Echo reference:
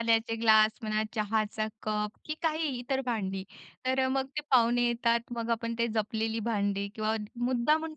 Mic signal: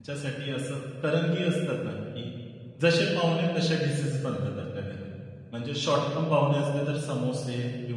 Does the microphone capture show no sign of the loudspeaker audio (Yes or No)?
Yes